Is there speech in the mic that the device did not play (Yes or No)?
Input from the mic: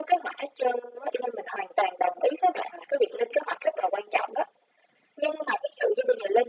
No